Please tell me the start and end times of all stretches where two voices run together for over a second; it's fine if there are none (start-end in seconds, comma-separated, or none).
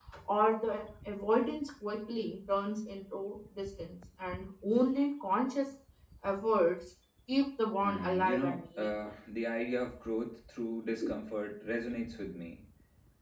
7.8-9.1